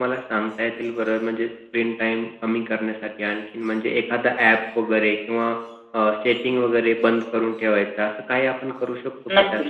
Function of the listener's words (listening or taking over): taking over